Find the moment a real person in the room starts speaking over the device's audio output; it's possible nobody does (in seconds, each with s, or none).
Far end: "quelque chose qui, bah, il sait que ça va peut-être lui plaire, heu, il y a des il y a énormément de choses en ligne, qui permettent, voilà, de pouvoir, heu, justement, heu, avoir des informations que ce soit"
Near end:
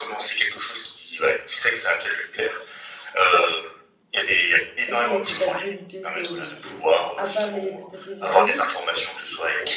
4.8 s